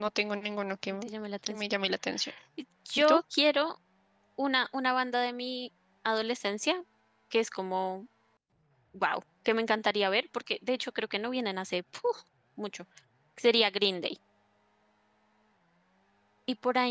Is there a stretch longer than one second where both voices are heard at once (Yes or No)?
No